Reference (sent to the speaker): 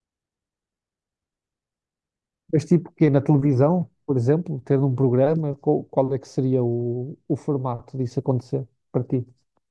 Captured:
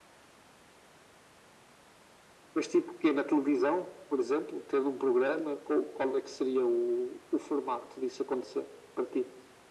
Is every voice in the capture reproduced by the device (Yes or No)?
Yes